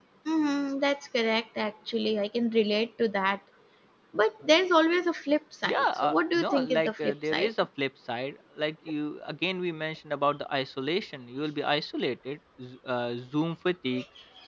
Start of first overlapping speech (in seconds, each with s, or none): 5.6 s